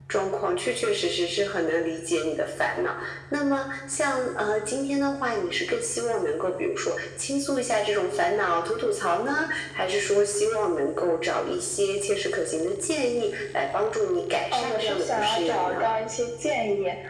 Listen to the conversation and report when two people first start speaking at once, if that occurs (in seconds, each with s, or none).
14.5 s